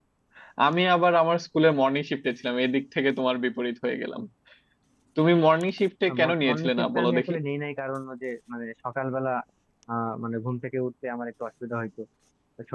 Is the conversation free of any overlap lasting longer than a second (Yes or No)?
No